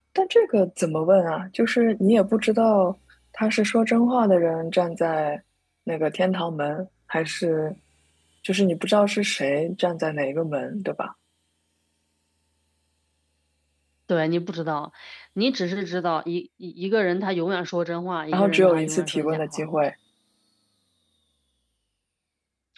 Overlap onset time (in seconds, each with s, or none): 18.3 s